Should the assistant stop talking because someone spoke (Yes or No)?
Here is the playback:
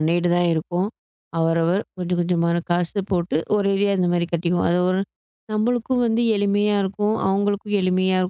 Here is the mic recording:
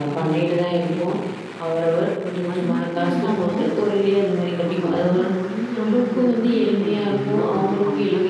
Yes